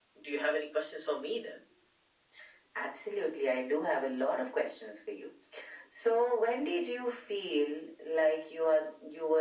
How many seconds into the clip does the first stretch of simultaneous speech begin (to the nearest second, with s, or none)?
none